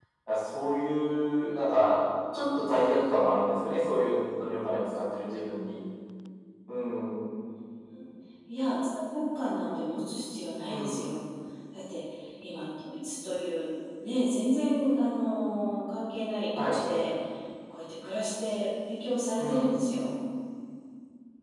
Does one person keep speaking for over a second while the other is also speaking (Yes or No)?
No